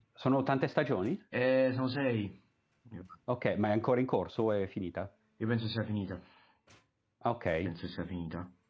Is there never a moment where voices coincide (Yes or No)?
Yes